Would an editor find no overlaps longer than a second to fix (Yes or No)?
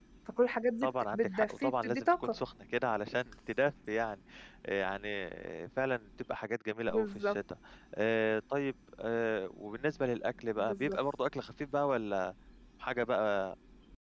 No